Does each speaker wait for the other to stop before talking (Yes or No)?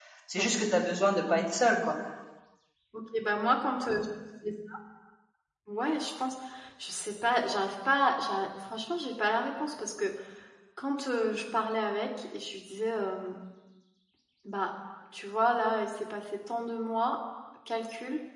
Yes